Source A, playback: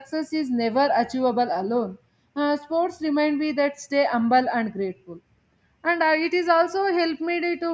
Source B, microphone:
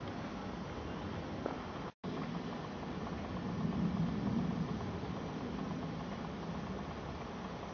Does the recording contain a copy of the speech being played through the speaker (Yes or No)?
No